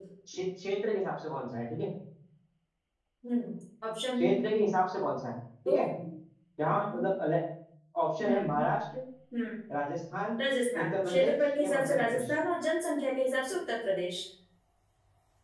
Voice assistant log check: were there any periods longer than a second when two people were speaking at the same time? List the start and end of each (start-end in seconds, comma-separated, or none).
10.8-12.2